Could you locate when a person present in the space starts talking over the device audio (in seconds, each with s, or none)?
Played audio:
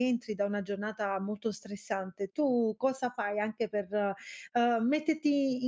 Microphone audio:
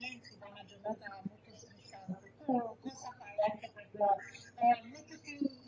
none